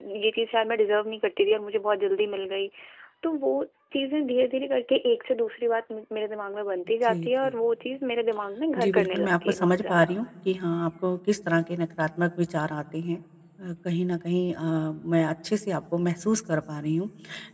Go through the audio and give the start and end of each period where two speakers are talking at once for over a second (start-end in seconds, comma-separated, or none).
8.8-10.1